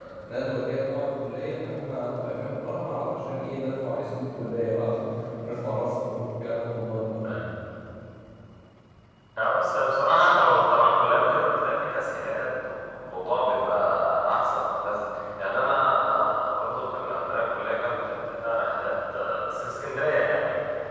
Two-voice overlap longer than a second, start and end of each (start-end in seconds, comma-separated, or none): none